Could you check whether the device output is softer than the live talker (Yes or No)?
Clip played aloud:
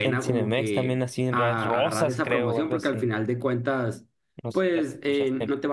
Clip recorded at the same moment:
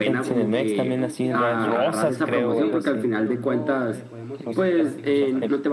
No